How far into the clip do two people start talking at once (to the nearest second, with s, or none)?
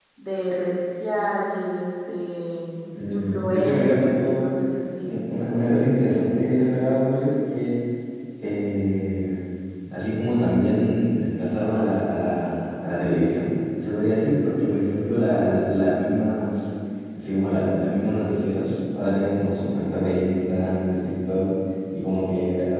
3 s